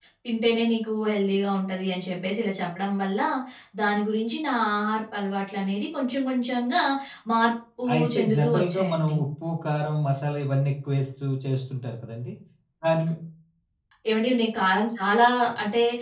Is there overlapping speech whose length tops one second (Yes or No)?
Yes